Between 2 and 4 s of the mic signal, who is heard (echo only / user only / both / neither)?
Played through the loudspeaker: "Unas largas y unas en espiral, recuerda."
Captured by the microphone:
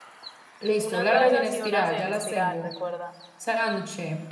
both